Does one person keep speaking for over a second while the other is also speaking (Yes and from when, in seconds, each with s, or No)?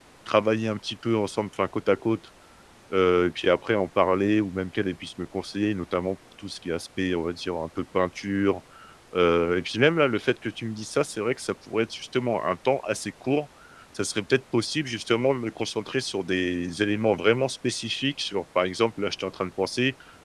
No